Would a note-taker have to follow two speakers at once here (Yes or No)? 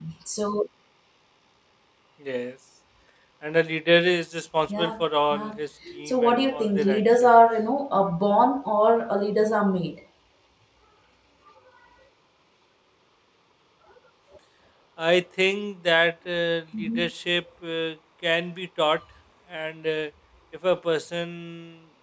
Yes